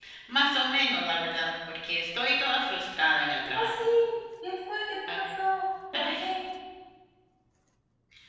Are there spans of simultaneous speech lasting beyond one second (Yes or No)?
No